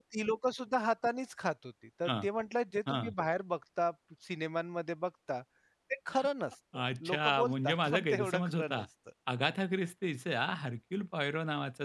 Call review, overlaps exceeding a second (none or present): present